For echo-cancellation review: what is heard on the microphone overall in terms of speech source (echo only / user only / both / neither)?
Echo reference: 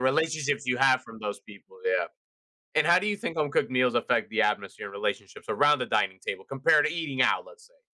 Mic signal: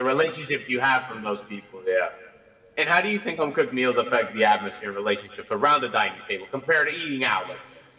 echo only